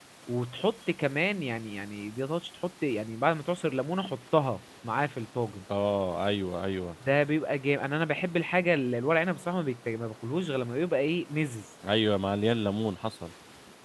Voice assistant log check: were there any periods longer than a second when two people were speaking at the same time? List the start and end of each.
none

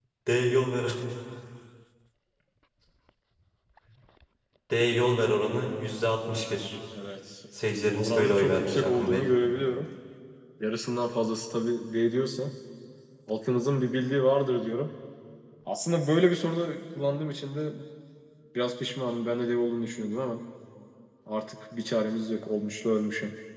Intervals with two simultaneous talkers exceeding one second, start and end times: 8.0-9.2

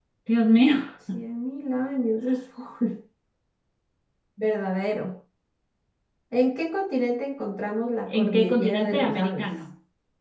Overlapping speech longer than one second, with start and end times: 8.2-9.5

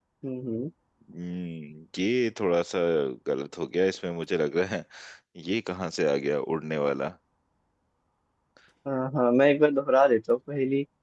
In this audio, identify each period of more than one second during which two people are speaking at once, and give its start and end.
none

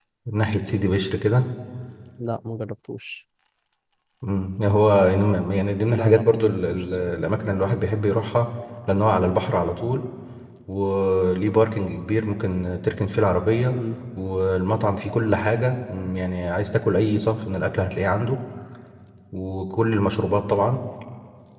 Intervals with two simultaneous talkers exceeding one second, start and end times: 5.9-7.2

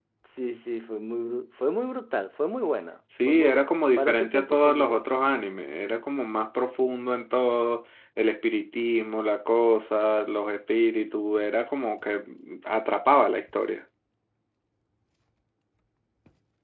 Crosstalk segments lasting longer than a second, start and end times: 3.3-5.1

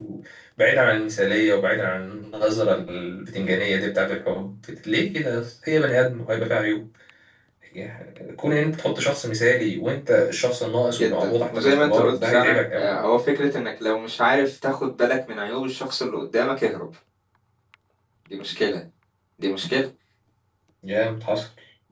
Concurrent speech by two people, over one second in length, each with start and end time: 10.9-12.9

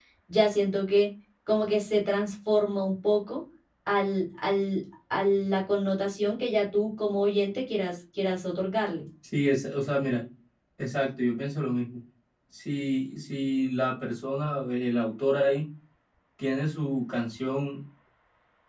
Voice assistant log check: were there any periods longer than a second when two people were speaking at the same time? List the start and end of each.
none

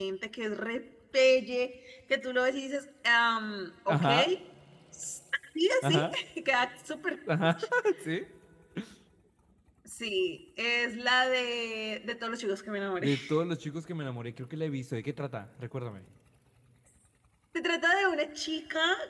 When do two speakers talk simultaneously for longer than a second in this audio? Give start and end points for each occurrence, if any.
none

